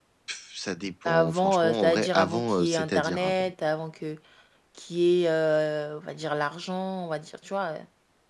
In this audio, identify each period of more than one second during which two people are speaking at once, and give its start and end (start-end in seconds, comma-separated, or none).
1.0-3.5